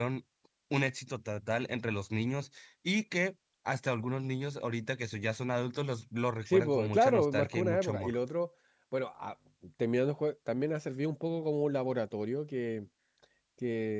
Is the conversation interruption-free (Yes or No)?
No